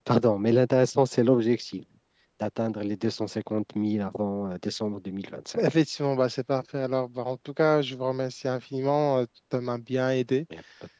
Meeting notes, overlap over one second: none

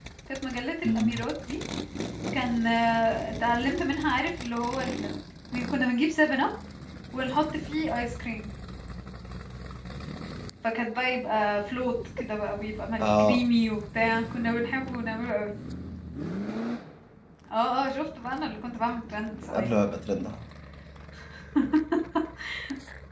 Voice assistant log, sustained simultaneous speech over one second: none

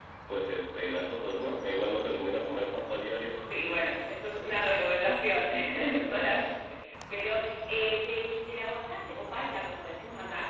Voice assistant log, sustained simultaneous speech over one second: none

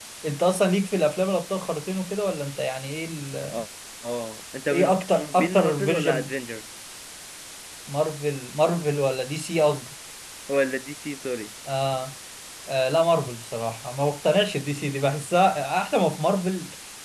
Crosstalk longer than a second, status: present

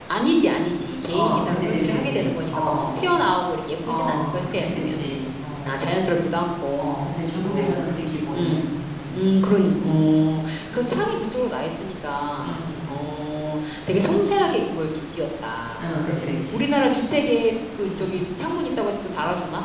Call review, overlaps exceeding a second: present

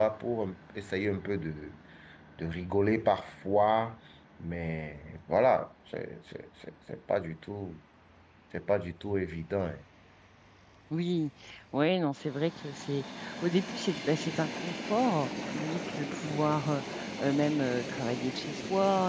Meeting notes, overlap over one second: none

